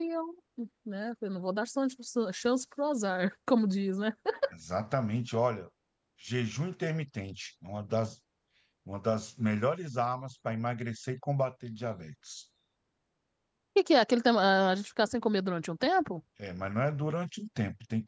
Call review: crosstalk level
none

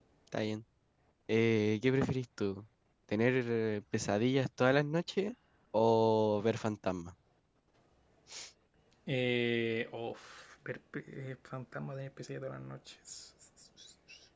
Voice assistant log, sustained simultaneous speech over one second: none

